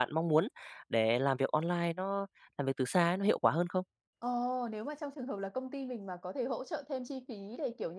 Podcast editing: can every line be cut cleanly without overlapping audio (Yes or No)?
Yes